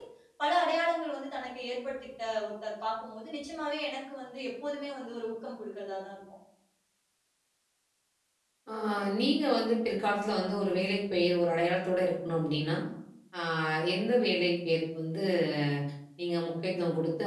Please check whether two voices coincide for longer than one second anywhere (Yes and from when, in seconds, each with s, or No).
No